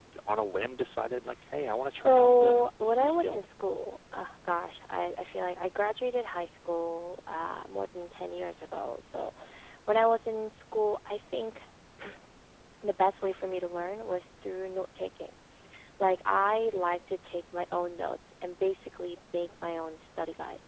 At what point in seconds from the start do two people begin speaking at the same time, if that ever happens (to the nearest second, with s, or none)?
2 s